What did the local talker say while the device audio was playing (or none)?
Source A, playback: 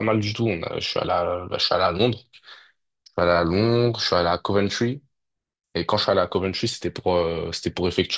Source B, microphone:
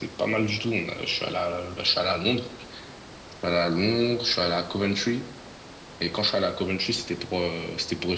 none